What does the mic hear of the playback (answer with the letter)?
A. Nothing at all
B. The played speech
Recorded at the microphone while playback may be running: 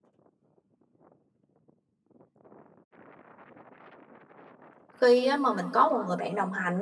A